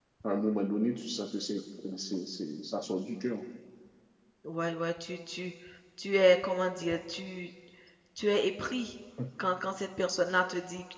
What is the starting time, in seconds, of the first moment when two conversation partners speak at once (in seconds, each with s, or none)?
none